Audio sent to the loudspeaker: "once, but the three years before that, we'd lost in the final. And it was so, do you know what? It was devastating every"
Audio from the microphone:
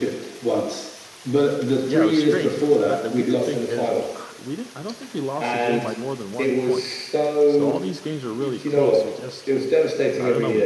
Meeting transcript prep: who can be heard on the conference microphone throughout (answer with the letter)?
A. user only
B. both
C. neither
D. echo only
B